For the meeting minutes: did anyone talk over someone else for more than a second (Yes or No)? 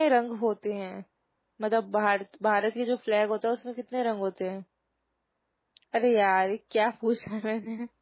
No